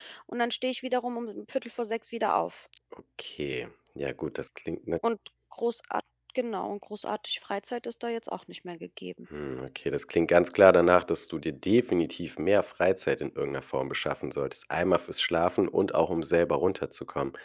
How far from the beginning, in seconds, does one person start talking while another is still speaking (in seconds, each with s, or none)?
none